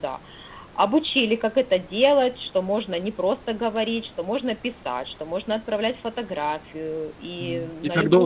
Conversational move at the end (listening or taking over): taking over